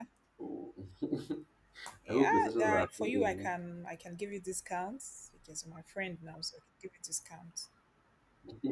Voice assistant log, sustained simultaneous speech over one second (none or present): present